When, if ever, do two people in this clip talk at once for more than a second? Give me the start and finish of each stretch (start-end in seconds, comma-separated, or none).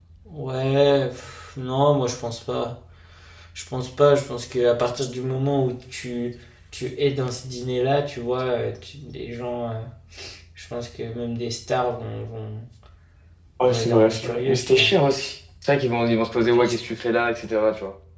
13.6-14.9